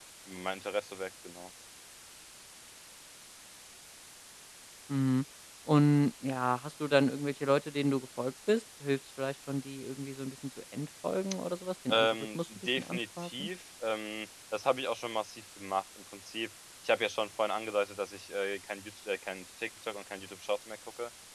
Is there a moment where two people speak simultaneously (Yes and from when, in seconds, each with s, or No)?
Yes, from 11.9 s